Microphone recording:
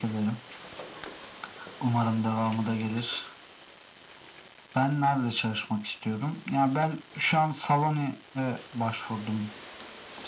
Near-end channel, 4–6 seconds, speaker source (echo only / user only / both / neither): echo only